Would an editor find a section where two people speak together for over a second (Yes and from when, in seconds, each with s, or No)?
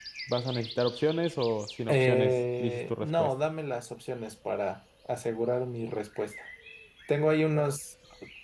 Yes, from 1.9 s